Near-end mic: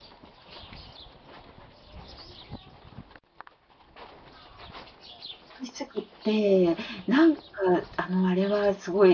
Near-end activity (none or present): present